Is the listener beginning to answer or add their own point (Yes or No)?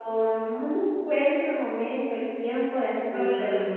No